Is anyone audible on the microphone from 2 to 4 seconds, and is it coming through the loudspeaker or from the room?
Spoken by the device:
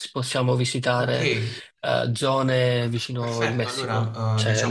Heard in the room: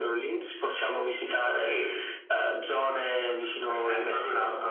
echo only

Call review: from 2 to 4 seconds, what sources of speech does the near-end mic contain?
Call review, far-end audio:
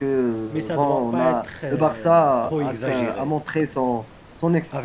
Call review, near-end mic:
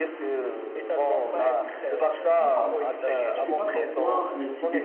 both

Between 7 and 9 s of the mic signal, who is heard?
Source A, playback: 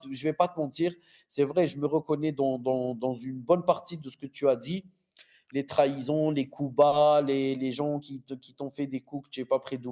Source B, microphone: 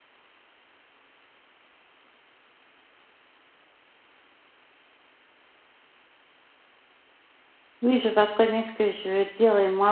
user only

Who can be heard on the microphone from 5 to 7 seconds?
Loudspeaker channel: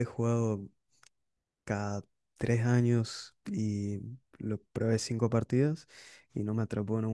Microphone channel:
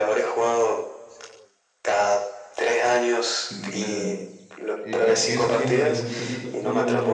both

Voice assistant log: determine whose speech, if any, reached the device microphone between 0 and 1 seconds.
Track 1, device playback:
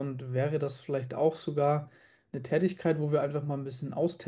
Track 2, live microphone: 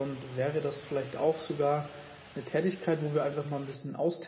echo only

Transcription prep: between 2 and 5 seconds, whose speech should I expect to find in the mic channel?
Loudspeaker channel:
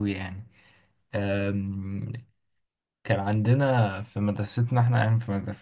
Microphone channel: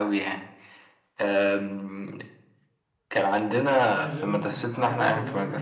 both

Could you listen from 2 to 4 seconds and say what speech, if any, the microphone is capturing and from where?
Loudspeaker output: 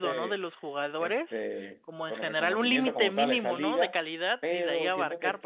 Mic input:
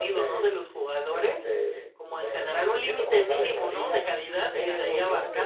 echo only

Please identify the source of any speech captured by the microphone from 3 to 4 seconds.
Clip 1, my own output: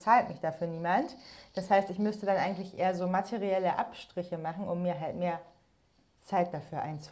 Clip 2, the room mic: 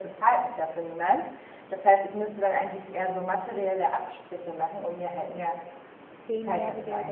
echo only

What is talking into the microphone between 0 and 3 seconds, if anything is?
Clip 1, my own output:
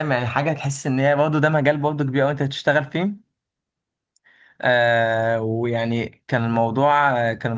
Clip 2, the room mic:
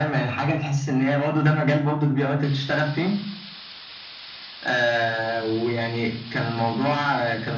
echo only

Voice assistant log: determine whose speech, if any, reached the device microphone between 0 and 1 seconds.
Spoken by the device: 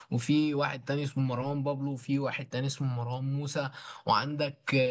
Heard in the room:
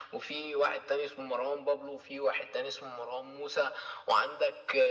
echo only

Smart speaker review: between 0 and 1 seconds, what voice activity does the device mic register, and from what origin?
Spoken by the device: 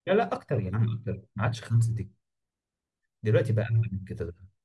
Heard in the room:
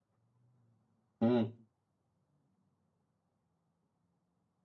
neither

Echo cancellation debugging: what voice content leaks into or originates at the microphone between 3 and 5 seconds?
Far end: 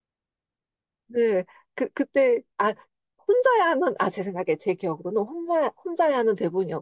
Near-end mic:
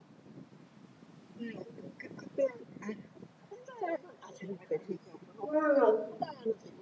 echo only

